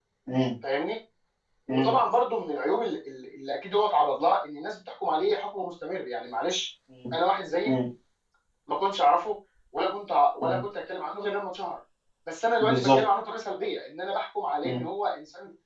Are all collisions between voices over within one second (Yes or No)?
Yes